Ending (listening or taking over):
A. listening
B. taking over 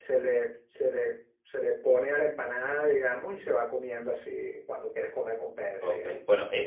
B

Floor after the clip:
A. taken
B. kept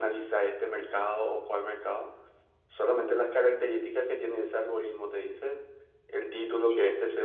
B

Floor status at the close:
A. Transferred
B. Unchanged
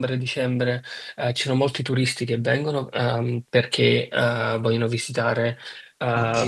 B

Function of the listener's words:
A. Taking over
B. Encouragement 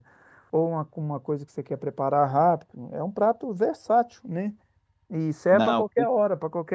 B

